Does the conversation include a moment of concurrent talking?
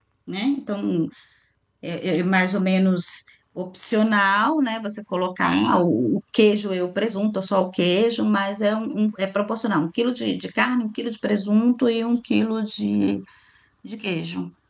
No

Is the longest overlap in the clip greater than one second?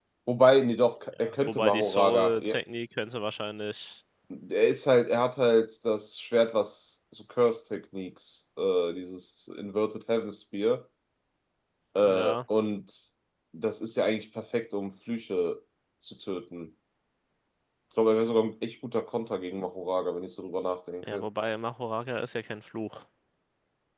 Yes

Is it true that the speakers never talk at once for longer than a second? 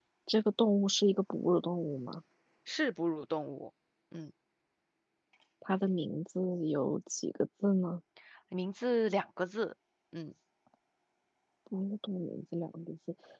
Yes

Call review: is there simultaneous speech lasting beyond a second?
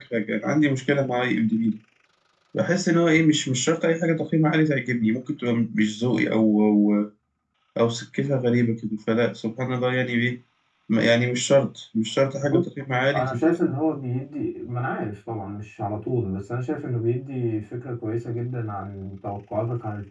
No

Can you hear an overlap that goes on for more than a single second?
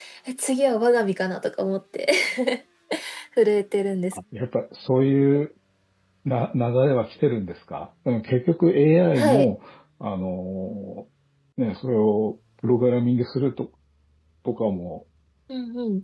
No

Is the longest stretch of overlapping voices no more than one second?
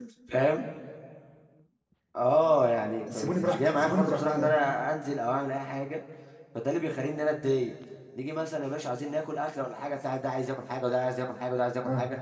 No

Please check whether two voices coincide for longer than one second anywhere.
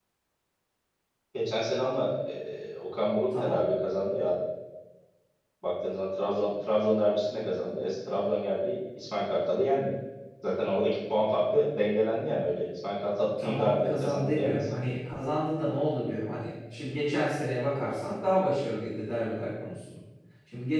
Yes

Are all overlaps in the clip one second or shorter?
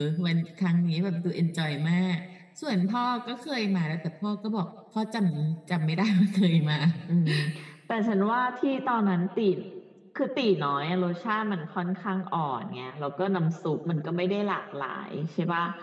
Yes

